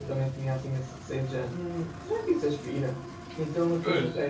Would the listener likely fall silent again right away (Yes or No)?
Yes